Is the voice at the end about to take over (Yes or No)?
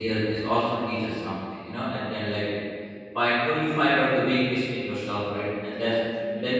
No